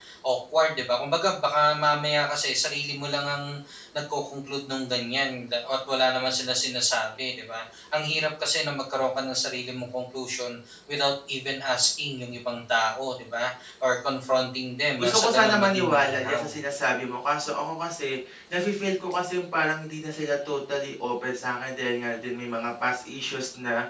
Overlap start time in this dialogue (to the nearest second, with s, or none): 15 s